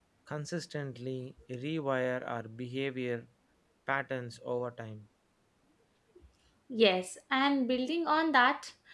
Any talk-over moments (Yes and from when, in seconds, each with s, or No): No